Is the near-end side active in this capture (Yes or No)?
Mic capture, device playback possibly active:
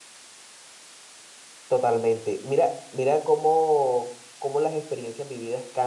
Yes